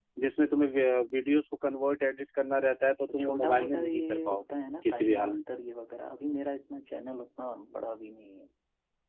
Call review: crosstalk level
present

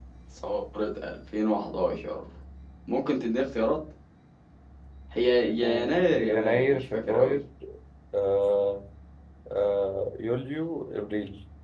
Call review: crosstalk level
present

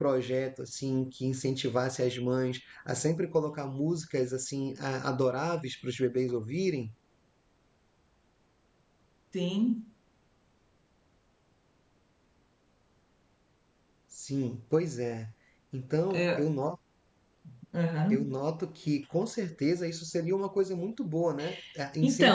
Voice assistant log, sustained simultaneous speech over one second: none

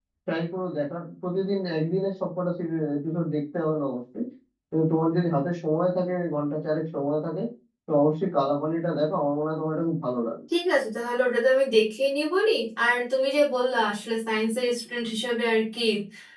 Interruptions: none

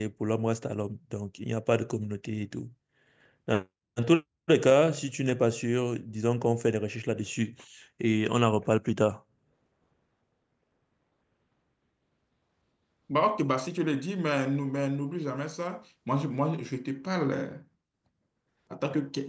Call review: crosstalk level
none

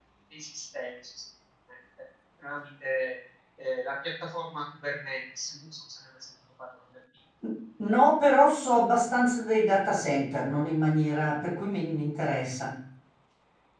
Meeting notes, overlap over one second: none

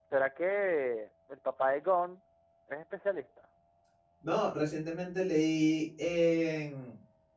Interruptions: none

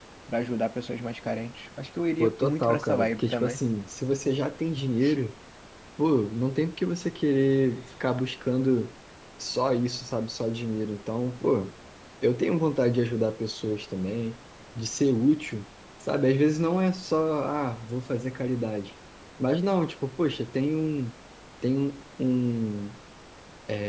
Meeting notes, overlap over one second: present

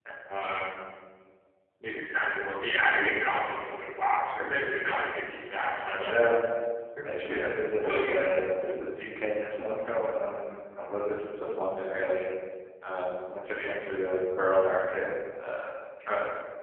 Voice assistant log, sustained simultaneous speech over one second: none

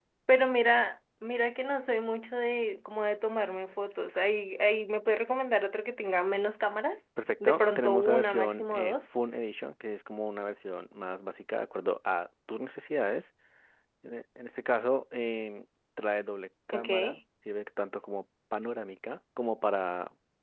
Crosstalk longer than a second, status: present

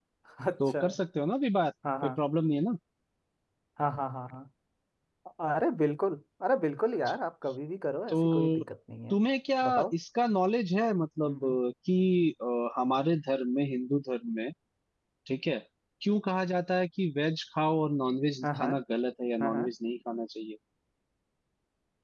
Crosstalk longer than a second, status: none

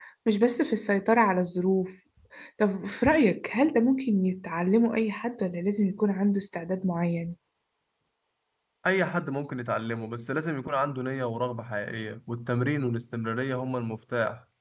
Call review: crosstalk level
none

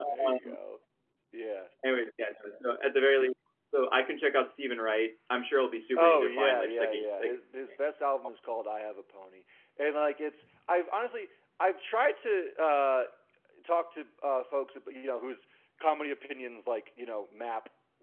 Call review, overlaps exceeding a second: present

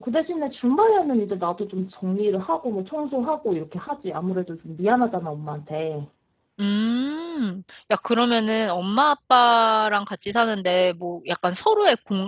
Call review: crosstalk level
none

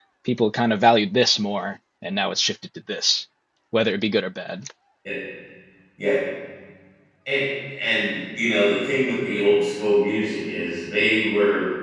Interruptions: none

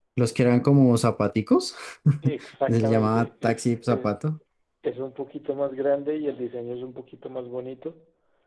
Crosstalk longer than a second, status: present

